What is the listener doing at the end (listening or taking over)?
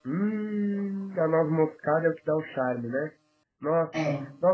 listening